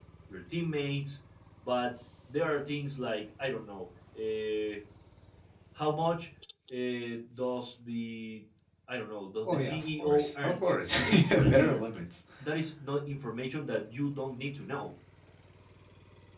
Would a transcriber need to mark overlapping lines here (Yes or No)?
Yes